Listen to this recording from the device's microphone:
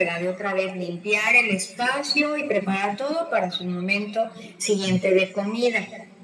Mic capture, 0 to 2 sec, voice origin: echo only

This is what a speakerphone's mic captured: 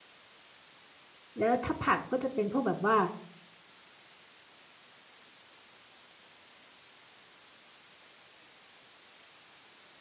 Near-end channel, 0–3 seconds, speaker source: user only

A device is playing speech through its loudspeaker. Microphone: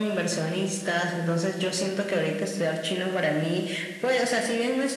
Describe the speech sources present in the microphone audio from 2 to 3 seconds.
echo only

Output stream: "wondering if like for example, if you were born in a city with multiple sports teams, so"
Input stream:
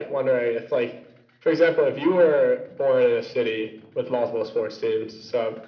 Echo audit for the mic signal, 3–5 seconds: echo only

